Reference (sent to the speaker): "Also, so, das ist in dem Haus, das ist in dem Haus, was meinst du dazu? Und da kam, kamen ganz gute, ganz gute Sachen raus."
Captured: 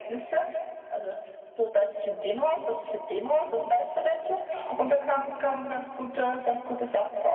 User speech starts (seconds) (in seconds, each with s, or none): none